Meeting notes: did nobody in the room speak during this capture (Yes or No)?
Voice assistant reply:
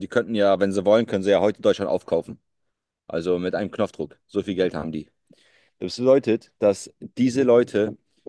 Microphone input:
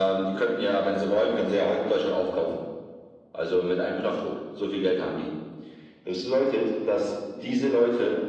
Yes